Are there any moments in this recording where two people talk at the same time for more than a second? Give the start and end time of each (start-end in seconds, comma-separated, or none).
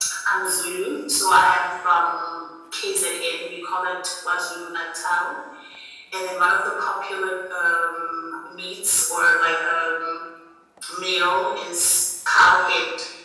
none